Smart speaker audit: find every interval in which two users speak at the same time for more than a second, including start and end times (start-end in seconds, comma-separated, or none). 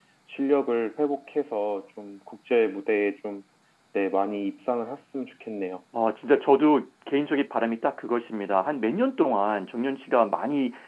none